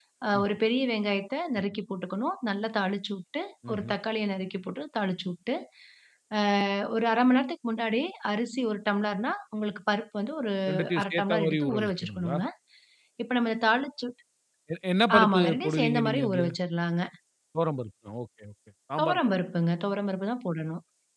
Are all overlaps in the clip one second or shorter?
No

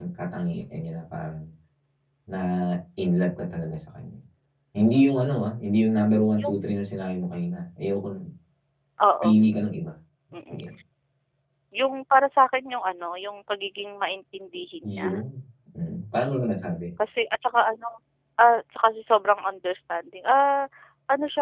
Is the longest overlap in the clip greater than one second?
No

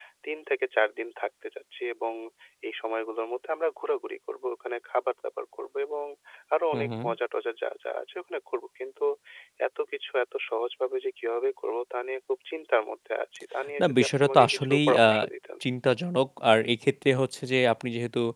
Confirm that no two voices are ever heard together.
No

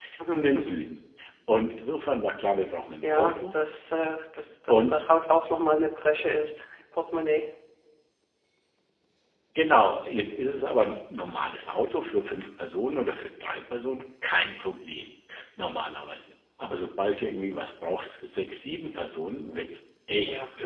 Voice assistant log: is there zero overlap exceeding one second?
Yes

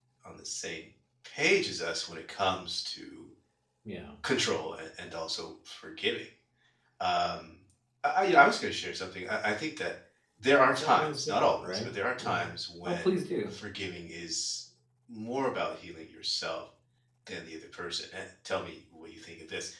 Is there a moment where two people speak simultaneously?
Yes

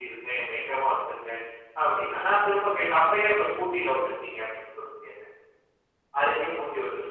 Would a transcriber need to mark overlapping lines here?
No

